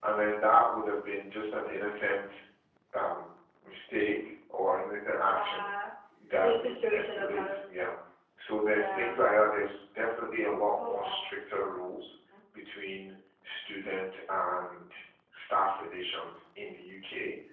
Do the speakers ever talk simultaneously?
Yes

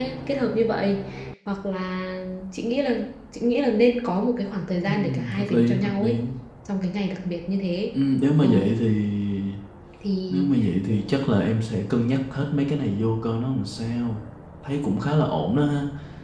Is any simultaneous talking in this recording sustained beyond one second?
Yes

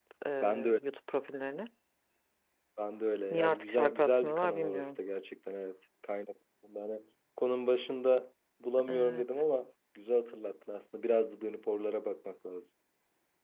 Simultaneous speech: Yes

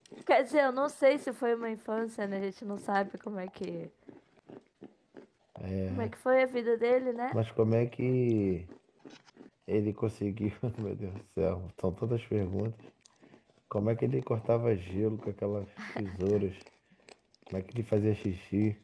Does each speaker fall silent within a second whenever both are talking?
Yes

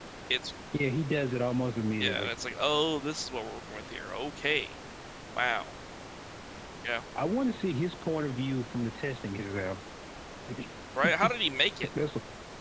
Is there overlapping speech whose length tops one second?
No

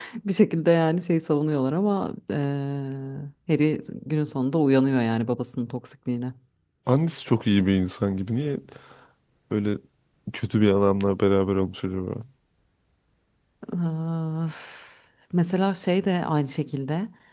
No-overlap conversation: Yes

